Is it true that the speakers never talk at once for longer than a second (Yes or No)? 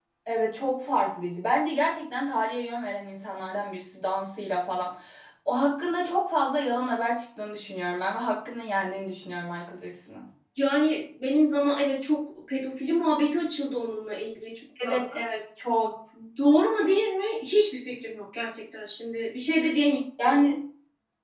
Yes